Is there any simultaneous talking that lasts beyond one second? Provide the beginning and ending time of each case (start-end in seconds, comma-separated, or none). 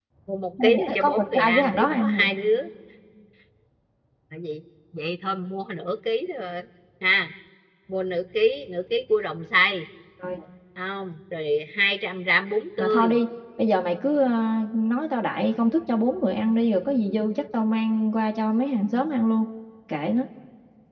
0.6-2.3